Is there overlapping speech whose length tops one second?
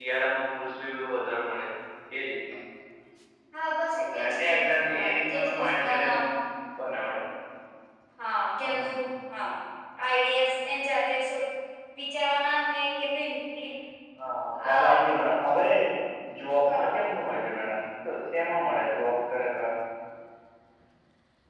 Yes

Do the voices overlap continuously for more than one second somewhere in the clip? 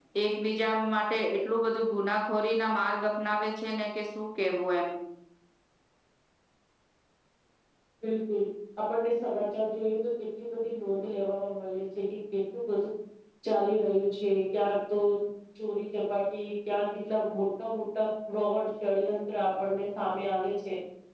No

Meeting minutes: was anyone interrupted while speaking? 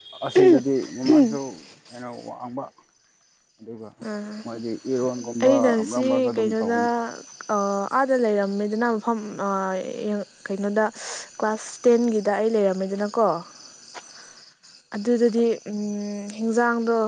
Yes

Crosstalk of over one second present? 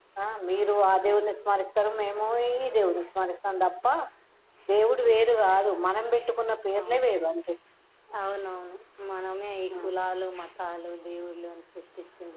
No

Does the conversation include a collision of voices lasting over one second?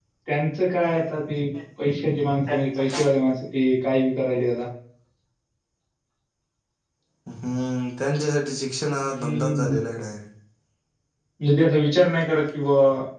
No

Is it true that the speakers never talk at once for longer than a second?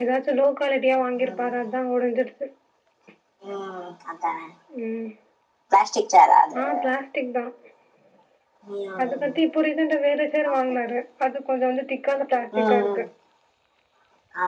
Yes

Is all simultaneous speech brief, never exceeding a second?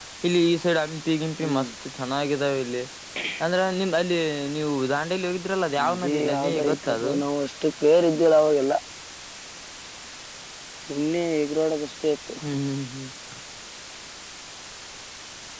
No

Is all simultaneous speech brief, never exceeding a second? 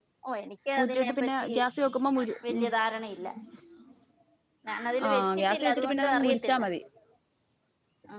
No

